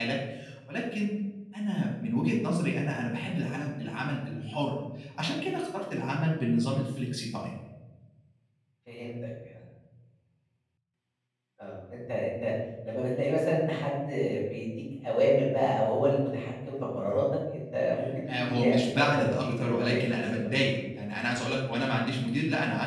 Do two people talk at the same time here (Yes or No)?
Yes